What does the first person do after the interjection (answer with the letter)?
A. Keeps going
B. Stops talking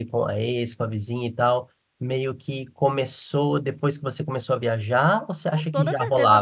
B